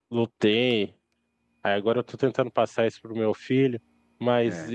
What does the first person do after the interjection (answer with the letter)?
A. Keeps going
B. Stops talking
A